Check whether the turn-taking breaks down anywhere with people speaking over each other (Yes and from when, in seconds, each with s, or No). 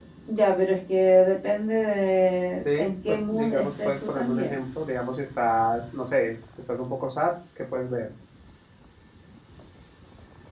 Yes, from 2.6 s